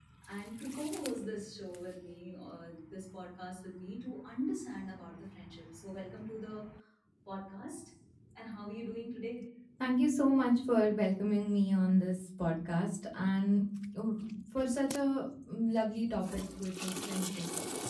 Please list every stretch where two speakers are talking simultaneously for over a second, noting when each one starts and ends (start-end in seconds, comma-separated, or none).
none